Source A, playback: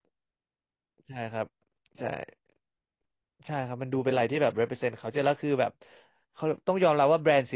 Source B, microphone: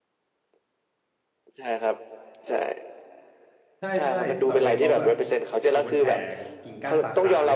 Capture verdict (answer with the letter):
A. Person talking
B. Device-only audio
A